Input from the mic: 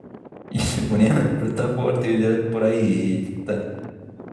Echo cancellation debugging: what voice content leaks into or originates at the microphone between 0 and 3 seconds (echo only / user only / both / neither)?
user only